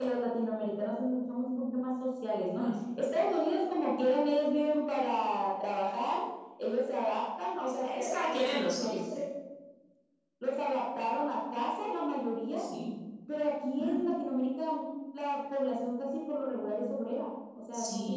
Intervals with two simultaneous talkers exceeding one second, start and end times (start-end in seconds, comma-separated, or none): 7.7-9.0